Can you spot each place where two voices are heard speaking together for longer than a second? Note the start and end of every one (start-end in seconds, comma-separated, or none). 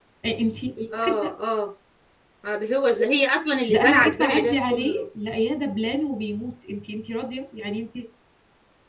3.7-5.0